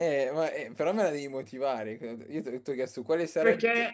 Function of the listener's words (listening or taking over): taking over